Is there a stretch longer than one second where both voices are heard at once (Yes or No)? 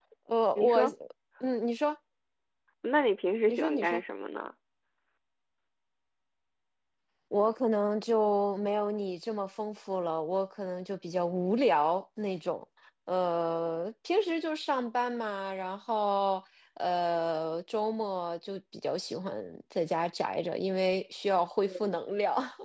No